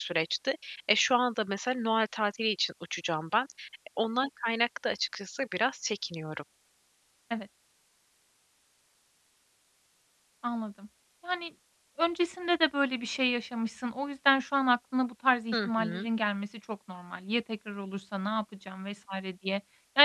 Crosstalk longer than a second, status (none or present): none